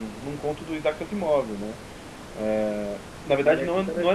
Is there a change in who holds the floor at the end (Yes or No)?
No